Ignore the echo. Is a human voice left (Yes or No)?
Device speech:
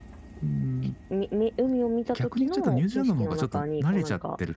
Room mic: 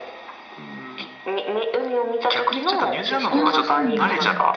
Yes